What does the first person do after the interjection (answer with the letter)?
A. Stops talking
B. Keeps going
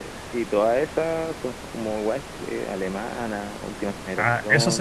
A